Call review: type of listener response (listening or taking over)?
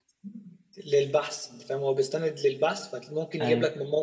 listening